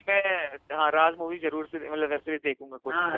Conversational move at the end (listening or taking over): taking over